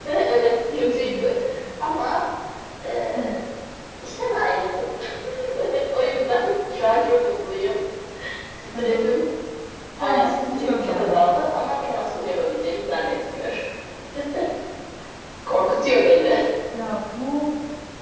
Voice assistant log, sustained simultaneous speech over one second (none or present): present